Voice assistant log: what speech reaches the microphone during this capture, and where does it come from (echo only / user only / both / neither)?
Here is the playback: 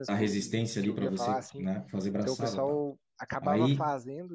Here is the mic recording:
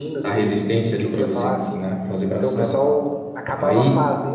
echo only